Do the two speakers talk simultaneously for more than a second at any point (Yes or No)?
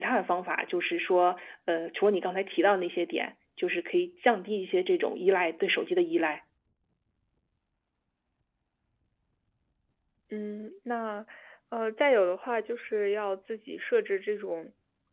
No